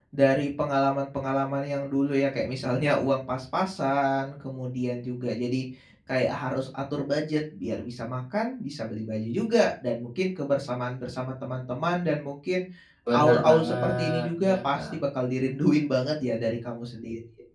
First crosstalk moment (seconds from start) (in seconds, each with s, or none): 13.1 s